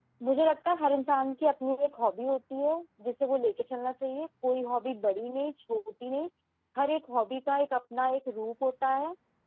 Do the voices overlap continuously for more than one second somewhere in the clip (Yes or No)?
No